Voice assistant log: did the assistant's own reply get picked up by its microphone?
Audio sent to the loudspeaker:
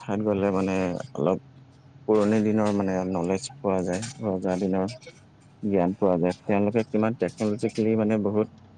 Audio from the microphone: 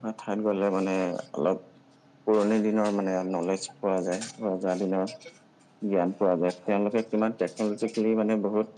Yes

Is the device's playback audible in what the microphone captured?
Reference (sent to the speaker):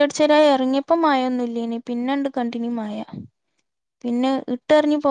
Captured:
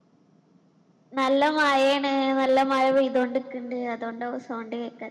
No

